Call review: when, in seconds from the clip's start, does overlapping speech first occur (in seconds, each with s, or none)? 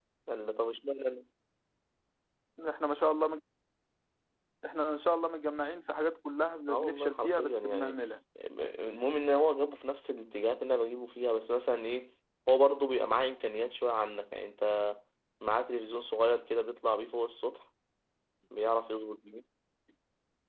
6.7 s